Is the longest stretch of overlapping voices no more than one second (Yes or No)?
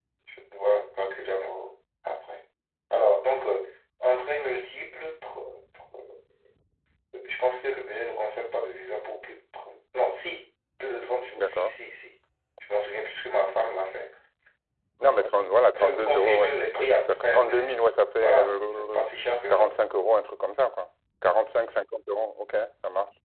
No